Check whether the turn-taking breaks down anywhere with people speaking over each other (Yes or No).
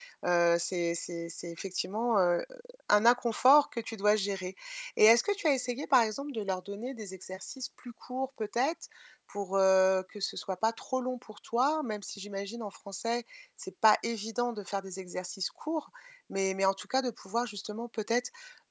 No